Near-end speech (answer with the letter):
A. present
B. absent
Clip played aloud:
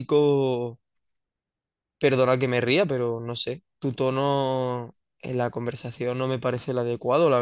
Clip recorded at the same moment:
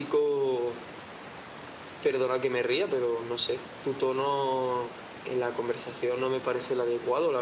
B